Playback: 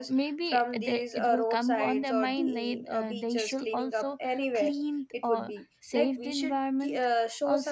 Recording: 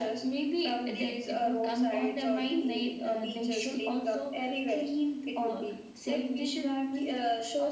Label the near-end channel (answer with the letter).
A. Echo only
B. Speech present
A